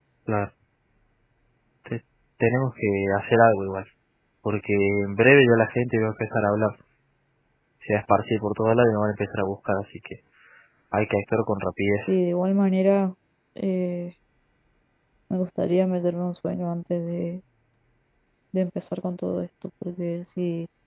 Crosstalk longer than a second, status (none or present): none